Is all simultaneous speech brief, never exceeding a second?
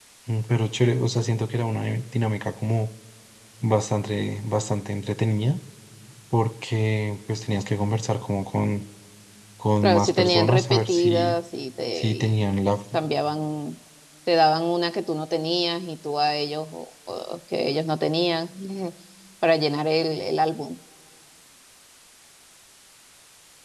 No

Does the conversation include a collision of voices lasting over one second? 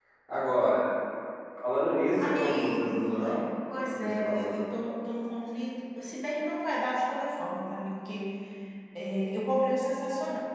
Yes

